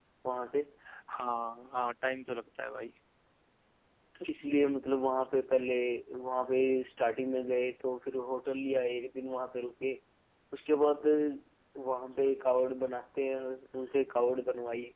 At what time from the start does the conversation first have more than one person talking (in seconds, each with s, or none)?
none